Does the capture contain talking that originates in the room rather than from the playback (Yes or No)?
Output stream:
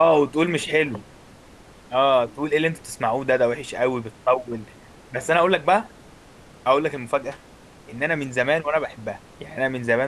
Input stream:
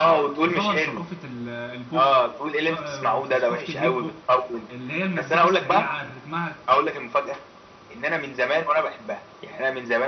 Yes